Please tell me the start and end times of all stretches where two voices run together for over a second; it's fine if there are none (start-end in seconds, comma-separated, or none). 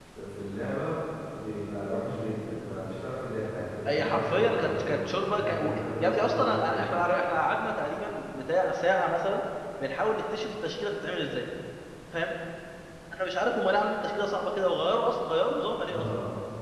3.9-6.9